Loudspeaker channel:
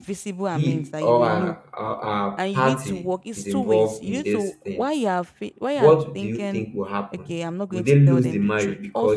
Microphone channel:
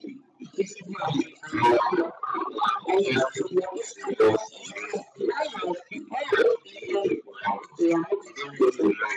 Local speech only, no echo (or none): none